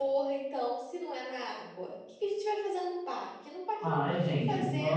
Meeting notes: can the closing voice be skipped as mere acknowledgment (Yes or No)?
No